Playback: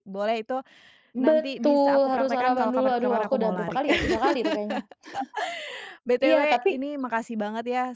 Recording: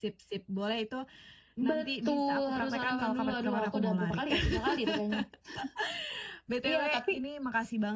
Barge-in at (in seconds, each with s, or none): none